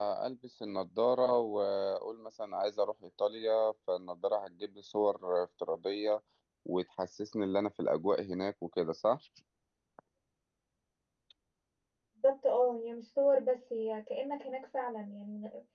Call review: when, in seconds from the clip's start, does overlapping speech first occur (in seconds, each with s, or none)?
none